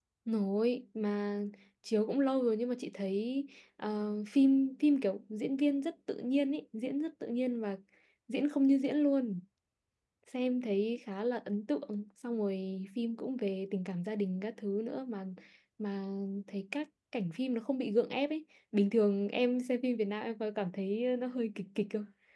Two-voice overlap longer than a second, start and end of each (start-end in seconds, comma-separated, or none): none